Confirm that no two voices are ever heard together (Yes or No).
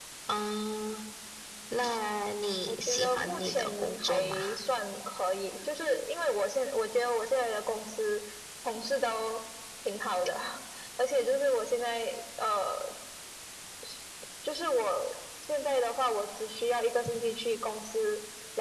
No